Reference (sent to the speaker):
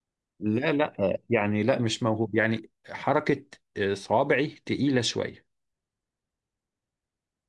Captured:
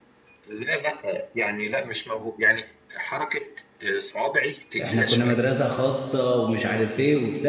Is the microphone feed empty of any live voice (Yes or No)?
No